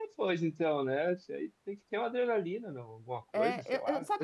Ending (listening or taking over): taking over